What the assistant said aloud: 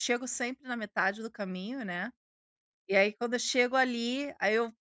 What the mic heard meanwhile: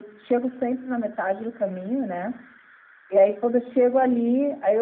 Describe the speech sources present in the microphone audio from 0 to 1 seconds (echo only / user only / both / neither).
echo only